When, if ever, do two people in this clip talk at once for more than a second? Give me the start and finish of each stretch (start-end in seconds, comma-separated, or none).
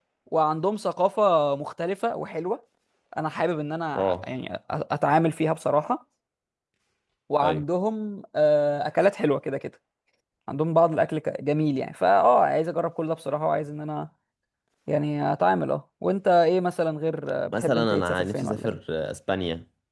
17.5-18.8